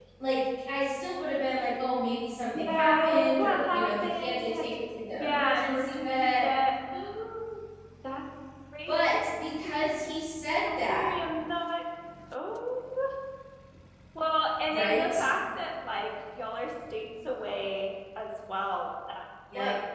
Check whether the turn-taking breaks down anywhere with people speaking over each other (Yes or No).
Yes